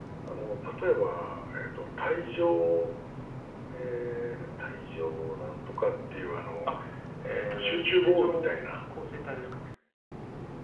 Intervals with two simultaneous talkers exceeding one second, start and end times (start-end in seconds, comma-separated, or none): 7.2-8.5